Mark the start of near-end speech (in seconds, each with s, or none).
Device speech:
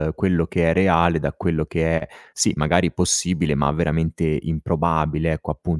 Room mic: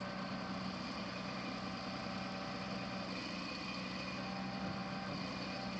none